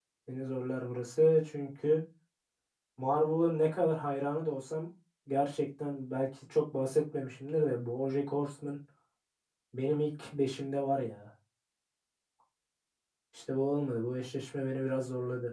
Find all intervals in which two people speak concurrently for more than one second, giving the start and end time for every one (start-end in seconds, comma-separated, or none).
none